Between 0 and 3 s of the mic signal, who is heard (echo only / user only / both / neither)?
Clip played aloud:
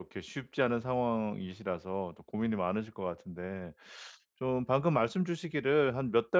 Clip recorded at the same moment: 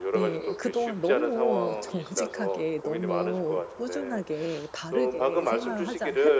both